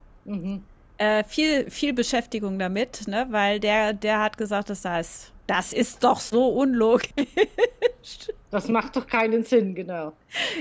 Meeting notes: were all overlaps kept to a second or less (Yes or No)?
Yes